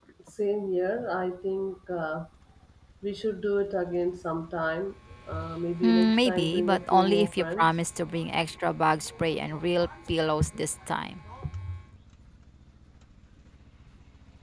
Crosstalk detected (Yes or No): Yes